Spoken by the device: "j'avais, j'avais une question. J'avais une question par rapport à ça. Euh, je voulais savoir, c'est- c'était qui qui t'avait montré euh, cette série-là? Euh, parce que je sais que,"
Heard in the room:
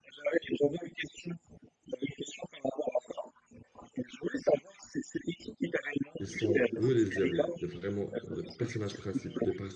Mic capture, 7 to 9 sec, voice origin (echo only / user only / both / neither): both